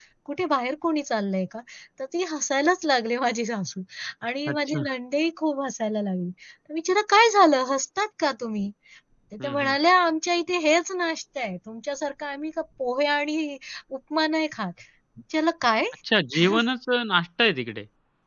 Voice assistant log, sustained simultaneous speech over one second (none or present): none